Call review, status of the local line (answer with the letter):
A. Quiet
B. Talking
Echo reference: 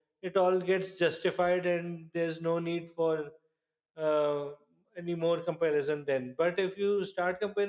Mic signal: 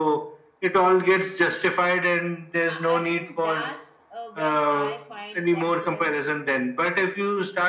B